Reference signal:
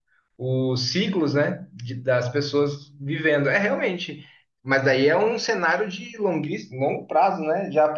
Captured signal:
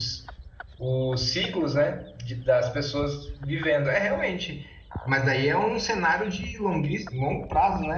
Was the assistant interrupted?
No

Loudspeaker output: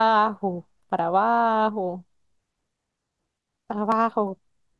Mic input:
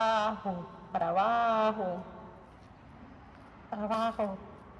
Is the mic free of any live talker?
Yes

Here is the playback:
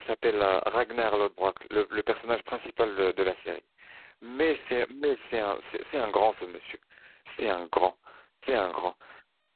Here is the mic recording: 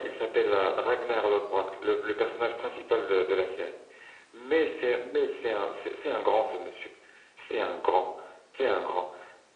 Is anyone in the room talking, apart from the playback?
No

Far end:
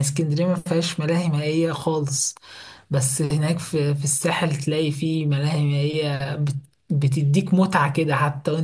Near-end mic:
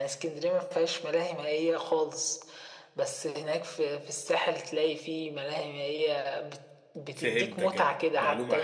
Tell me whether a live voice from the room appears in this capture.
Yes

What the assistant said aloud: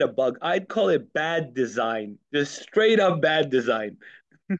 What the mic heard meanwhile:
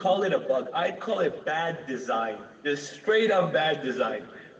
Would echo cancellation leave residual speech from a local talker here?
No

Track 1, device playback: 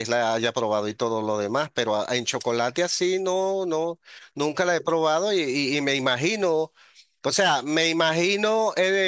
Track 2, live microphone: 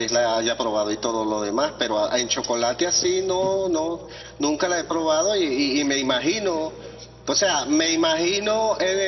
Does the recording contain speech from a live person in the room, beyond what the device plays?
No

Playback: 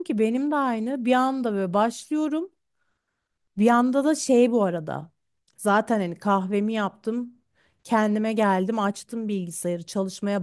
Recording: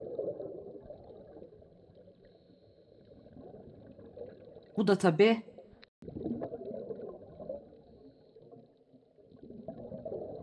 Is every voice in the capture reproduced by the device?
No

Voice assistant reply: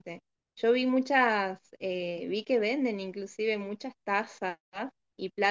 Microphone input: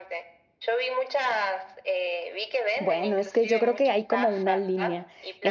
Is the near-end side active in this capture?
Yes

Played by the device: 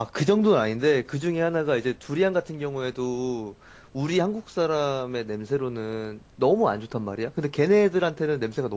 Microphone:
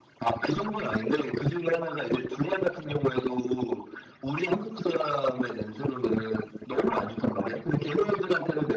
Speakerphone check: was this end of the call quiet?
Yes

